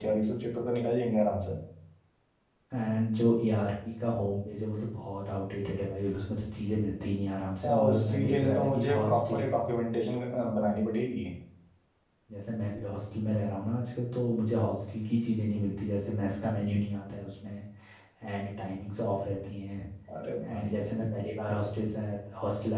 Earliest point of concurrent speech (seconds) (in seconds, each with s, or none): 7.6 s